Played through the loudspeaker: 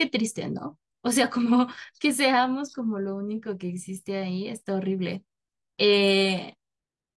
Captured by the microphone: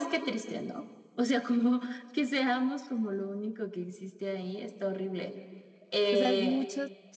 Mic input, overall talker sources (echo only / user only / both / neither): both